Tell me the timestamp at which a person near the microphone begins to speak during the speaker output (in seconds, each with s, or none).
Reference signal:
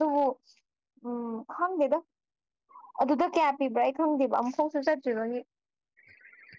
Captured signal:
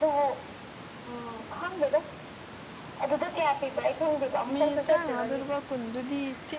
4.5 s